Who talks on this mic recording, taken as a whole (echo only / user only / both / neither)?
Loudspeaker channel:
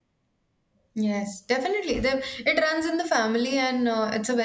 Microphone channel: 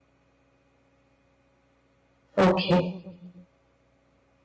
user only